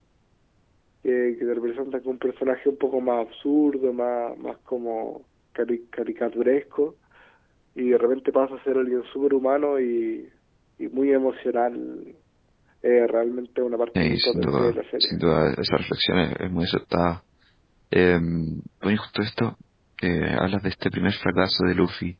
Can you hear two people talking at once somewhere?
Yes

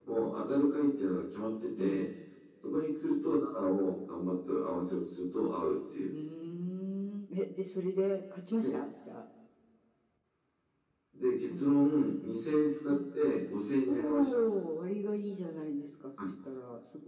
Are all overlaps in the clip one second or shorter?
Yes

